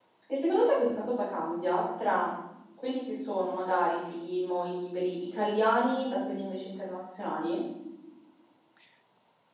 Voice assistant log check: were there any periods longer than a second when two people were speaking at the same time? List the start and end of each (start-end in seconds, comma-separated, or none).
none